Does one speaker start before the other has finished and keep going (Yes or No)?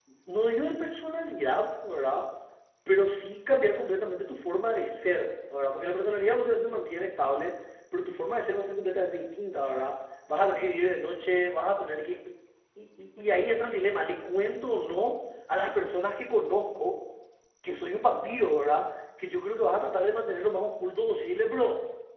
No